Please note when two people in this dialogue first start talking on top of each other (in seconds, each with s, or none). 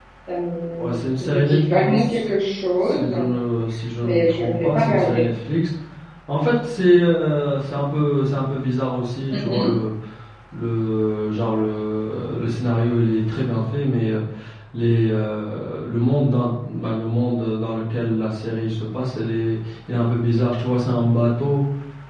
0.8 s